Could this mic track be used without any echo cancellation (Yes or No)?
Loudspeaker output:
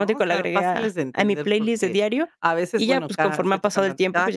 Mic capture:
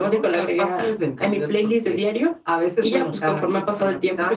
No